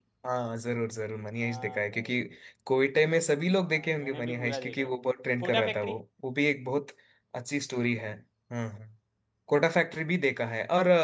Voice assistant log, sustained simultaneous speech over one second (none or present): present